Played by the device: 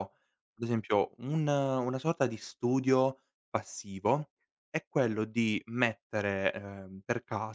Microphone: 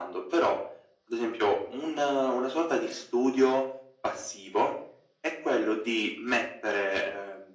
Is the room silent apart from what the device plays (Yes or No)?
Yes